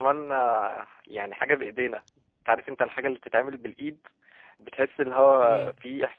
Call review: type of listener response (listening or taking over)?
taking over